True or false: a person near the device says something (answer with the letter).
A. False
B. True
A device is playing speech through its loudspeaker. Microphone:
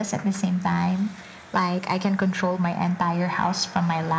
A